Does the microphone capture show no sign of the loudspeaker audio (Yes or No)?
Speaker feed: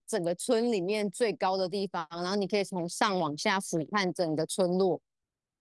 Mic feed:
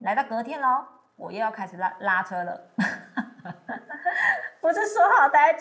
Yes